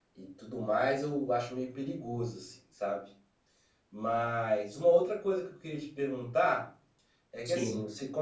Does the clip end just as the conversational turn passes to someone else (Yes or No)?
No